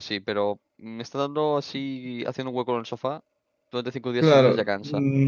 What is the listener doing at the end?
taking over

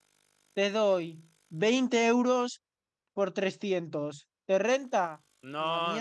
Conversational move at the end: taking over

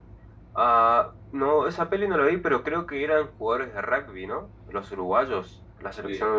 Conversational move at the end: listening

